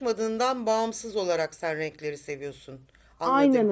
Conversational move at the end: taking over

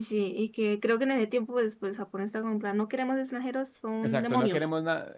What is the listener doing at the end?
taking over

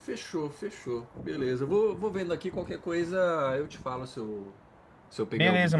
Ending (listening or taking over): taking over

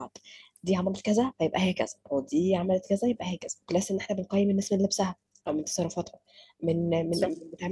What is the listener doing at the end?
listening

